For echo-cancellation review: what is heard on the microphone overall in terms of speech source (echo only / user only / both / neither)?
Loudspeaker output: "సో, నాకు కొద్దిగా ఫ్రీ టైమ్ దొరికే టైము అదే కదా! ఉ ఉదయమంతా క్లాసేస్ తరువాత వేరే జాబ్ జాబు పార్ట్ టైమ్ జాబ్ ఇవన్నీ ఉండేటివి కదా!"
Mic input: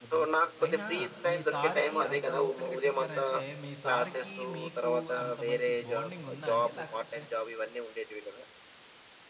both